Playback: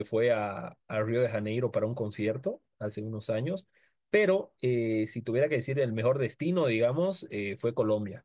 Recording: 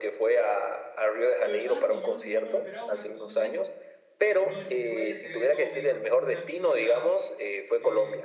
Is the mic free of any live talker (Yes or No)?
No